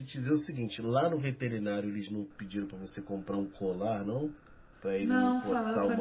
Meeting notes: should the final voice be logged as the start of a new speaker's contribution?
Yes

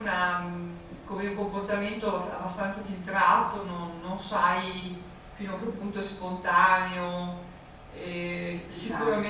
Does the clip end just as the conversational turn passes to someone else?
No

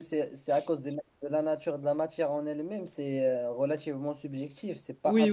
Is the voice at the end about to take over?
Yes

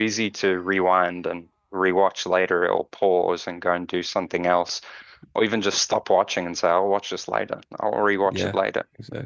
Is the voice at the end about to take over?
Yes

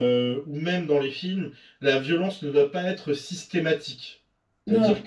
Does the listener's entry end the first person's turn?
No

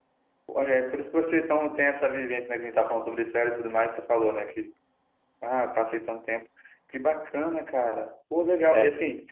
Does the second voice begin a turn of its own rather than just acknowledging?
No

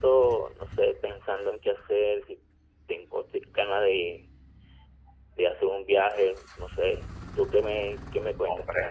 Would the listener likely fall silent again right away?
No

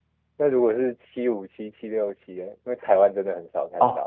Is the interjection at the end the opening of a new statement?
Yes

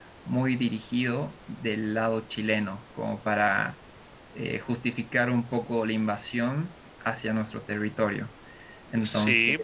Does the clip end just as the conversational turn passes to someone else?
Yes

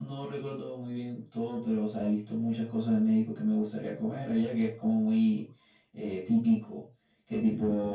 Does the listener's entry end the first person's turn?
No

